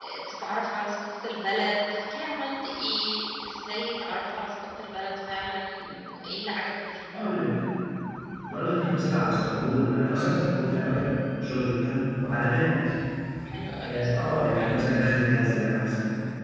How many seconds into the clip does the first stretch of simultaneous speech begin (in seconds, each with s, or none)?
13.8 s